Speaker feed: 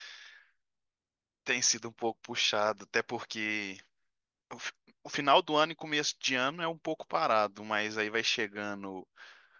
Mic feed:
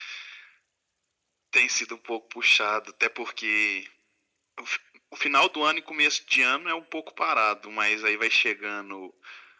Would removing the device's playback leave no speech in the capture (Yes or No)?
Yes